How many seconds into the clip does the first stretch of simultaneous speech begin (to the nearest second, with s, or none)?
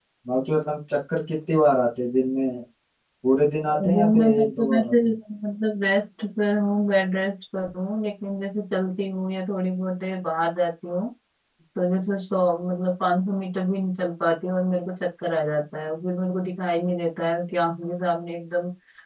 4 s